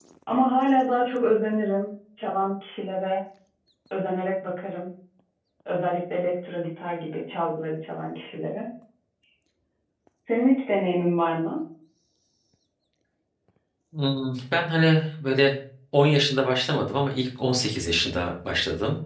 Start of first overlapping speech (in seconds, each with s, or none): none